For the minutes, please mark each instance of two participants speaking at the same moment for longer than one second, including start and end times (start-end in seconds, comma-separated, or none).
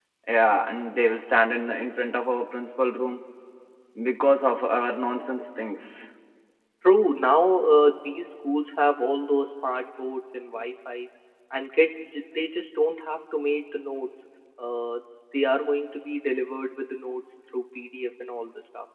none